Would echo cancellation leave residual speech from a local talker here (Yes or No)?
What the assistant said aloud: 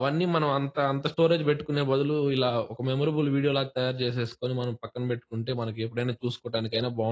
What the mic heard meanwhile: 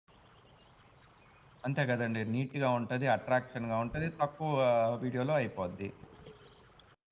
Yes